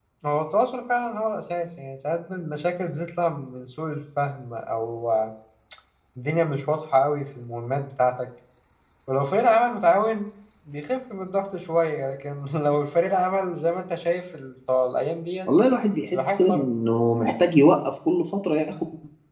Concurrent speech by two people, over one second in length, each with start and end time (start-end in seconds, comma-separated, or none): none